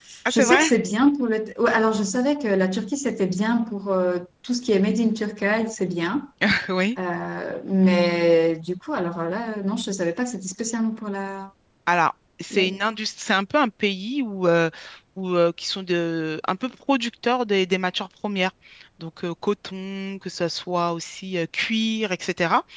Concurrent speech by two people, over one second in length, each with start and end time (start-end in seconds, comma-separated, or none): none